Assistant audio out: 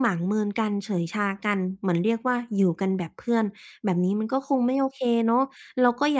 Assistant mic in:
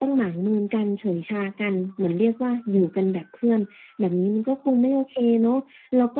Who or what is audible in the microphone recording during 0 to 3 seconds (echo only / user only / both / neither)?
echo only